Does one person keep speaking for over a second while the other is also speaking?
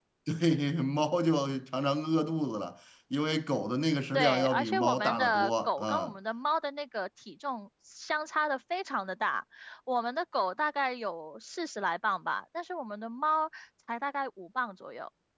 Yes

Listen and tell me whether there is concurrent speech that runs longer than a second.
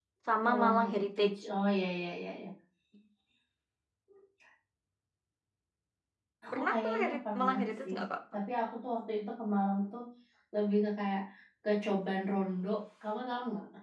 Yes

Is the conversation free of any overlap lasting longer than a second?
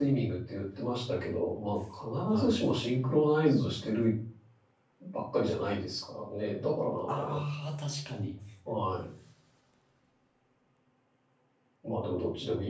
Yes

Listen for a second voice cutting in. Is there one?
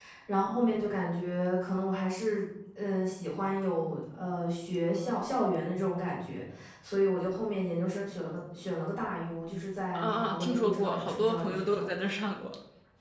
Yes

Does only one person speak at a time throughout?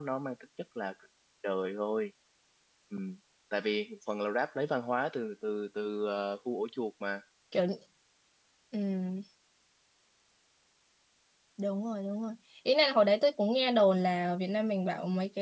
Yes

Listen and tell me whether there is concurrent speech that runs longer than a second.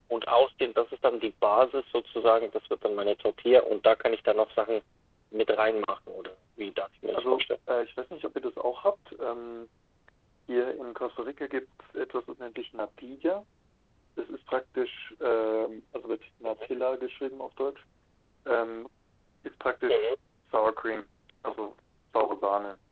No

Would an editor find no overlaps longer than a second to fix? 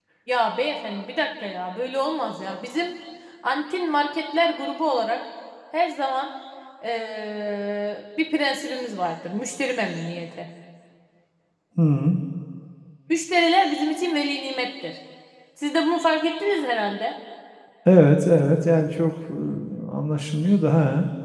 Yes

